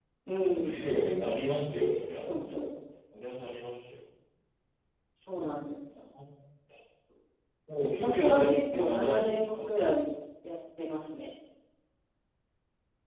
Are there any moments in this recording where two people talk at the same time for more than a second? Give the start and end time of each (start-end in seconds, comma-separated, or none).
8.0-9.5